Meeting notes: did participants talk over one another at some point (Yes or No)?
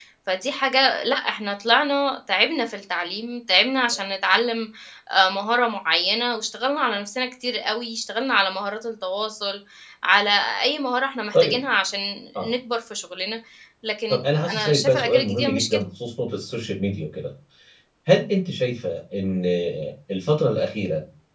Yes